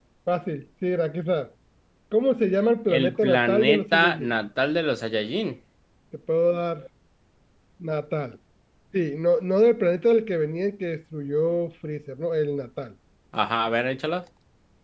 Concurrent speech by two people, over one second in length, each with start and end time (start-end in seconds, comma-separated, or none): 3.0-4.3